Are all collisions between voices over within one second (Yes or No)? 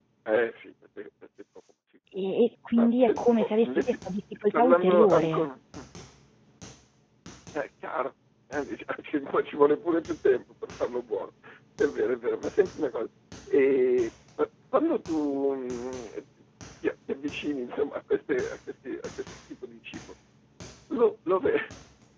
No